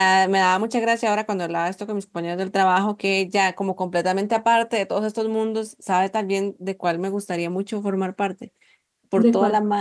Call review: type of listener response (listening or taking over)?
listening